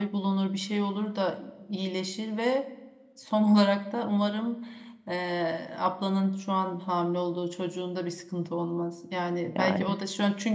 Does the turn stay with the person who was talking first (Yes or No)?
Yes